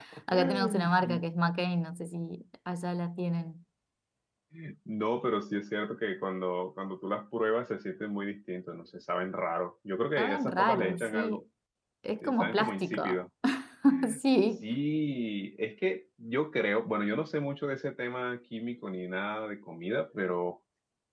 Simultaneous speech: Yes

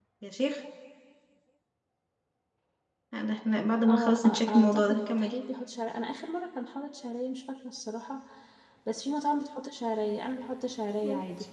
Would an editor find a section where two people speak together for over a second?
Yes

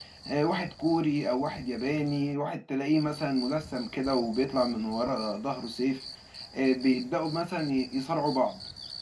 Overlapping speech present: No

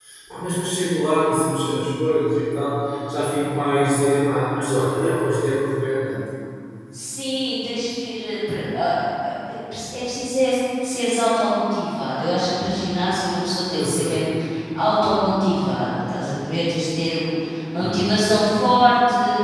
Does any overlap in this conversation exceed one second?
No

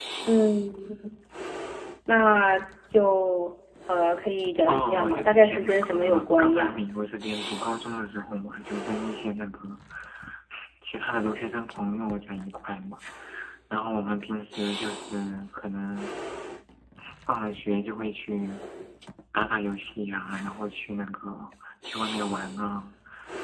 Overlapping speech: Yes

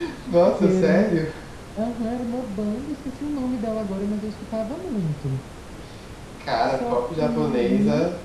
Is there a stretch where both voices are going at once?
Yes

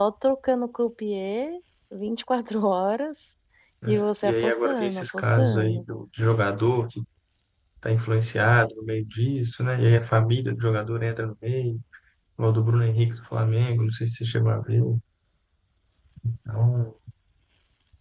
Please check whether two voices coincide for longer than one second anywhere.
Yes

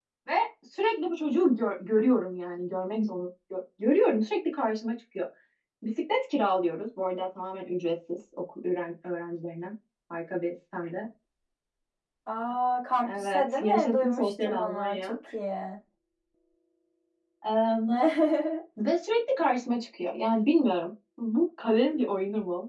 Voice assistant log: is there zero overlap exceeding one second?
No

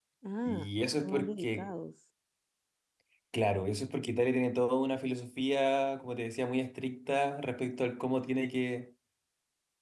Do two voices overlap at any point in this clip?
Yes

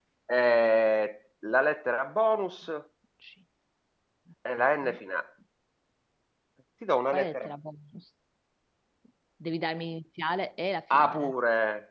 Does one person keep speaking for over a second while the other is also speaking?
No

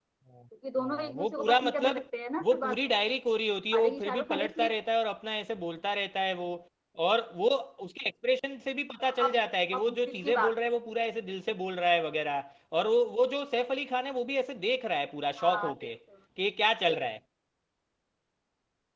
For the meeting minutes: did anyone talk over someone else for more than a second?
Yes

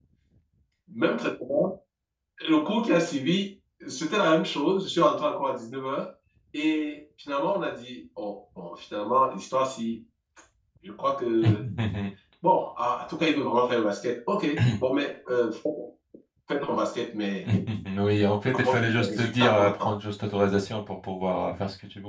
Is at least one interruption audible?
Yes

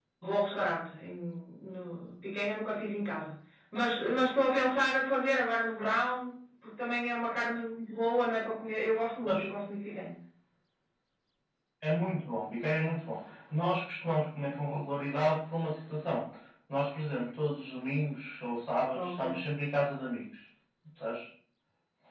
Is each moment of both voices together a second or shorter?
Yes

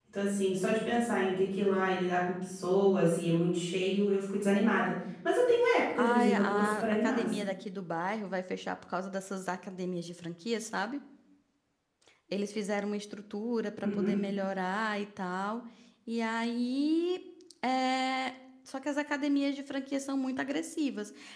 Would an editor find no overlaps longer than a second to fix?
No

